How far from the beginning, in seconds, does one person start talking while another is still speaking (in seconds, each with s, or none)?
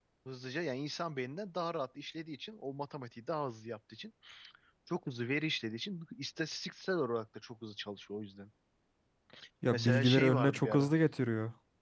9.7 s